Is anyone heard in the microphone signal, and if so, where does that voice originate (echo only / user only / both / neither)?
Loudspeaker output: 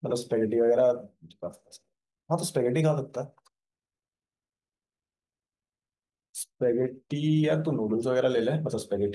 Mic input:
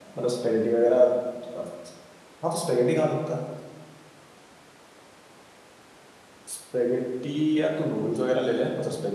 echo only